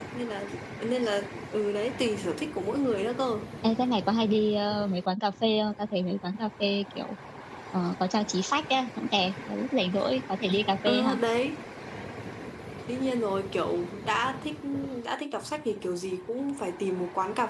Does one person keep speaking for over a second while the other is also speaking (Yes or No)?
No